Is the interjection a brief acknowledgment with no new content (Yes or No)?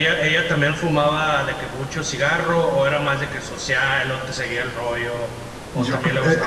No